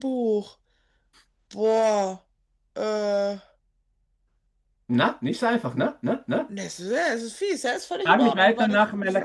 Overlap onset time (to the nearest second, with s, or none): 8 s